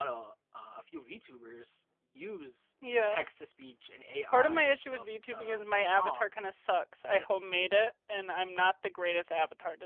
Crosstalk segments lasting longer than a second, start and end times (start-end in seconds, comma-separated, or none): 4.3-6.3